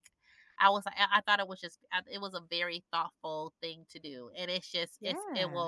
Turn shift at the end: No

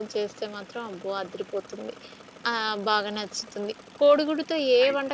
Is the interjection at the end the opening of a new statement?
No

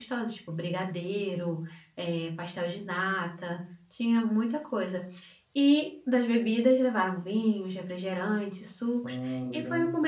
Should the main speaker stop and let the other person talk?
No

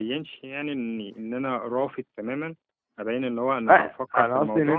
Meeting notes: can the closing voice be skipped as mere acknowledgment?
No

